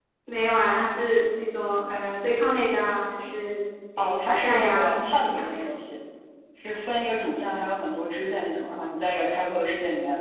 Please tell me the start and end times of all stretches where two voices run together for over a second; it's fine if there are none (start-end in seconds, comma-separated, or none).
4.0-5.6